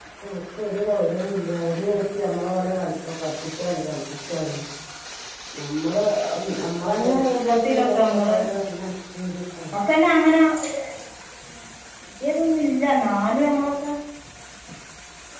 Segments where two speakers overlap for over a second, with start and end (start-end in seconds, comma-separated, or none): 7.0-8.4